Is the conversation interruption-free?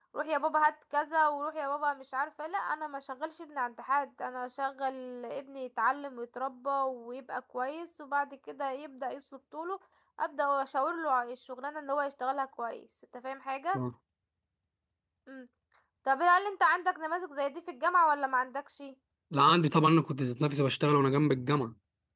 Yes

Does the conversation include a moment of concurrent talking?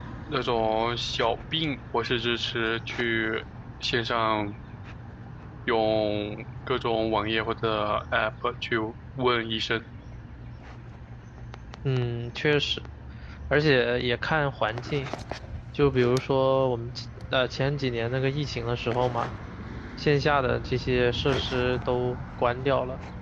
No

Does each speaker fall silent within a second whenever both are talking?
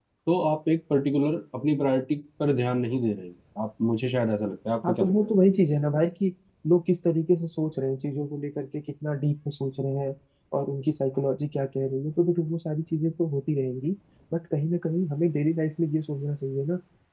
Yes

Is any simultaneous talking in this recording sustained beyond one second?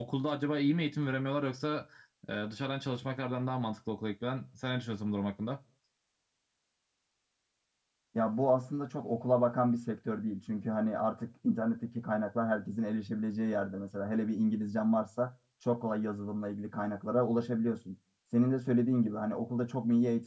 No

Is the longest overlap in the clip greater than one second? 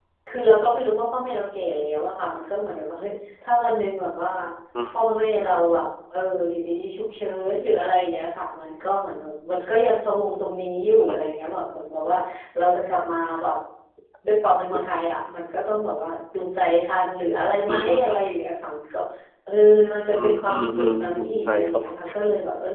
Yes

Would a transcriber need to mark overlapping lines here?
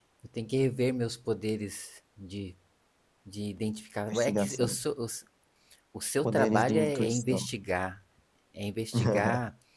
Yes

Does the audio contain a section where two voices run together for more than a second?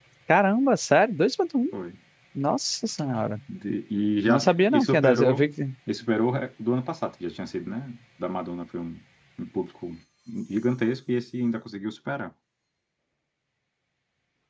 Yes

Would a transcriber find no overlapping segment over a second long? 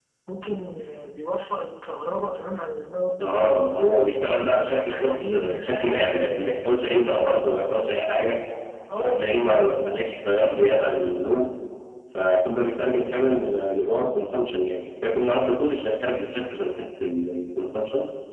No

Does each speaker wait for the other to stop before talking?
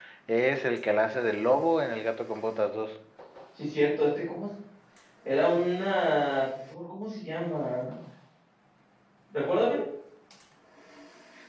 Yes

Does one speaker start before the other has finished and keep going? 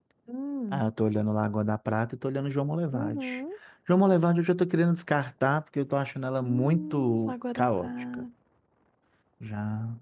Yes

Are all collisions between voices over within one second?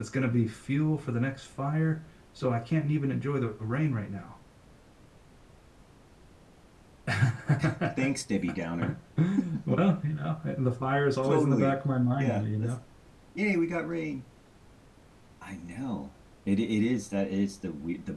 Yes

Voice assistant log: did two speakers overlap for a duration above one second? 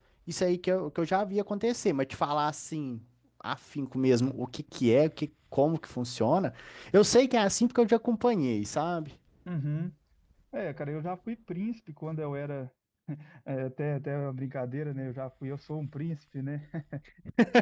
No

